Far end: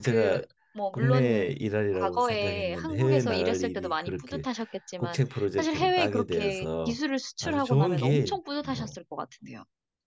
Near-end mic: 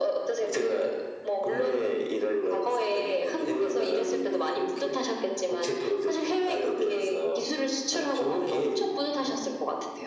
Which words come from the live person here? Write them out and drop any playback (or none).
none